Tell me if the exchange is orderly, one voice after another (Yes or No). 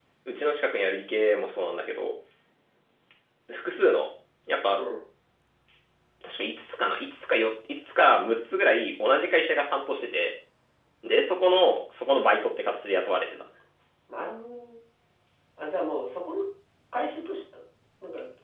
Yes